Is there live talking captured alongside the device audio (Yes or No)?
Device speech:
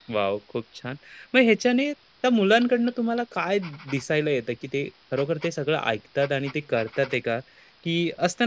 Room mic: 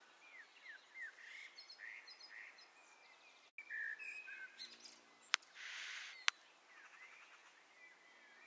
No